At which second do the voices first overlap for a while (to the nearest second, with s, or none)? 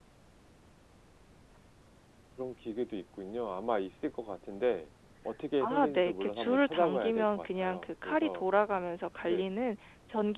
6 s